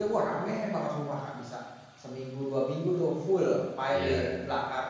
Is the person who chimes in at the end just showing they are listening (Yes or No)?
Yes